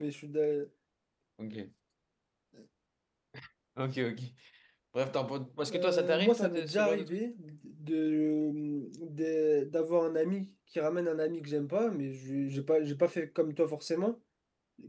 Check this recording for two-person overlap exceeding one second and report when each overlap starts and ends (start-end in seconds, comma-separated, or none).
5.7-7.2